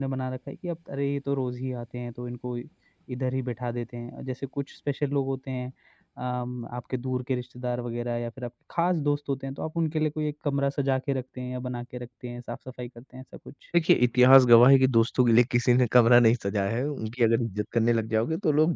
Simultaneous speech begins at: none

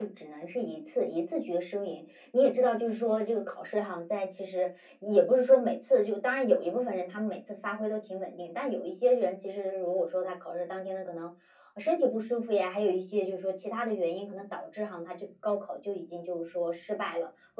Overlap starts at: none

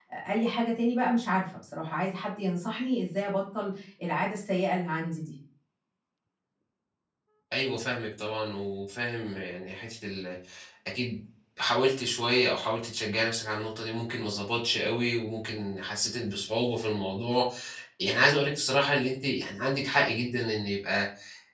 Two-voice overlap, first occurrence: none

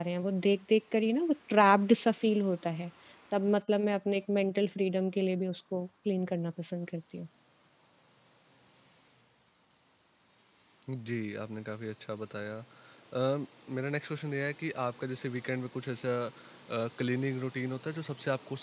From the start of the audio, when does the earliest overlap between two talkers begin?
none

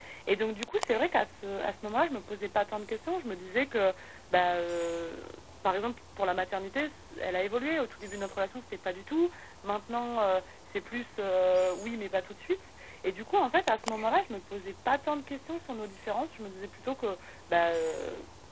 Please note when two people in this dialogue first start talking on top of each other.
none

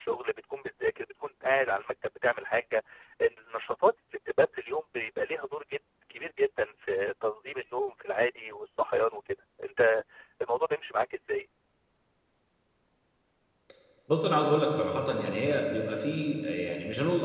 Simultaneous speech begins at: none

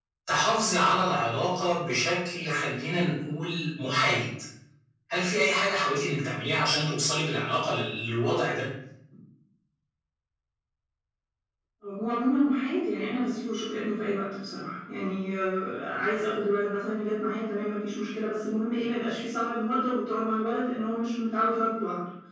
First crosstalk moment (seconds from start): none

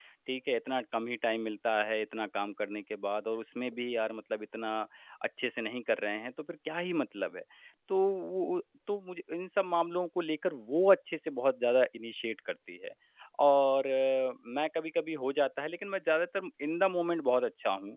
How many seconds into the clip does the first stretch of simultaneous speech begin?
none

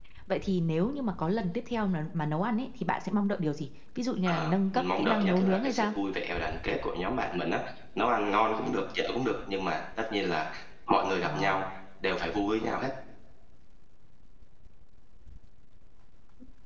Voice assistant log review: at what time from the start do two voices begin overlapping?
4.3 s

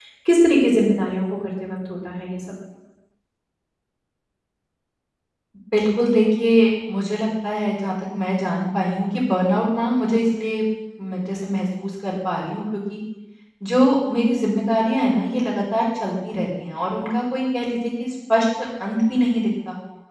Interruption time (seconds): none

